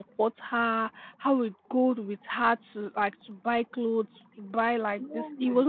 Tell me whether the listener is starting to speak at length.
No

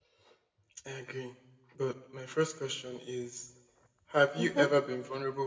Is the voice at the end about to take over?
No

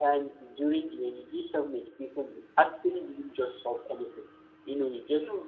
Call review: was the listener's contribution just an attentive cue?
Yes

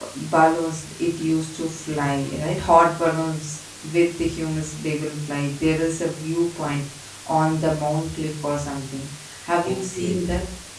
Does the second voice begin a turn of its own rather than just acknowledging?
Yes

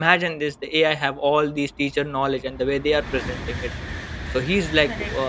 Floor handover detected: No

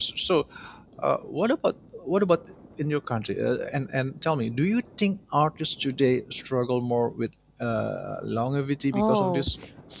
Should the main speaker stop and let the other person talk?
Yes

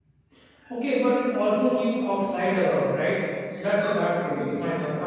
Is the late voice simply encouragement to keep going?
No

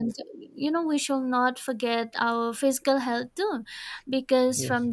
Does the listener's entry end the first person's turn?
No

